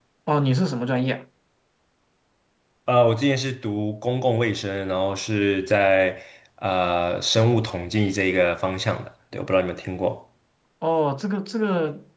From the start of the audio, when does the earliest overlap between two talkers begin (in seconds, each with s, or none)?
none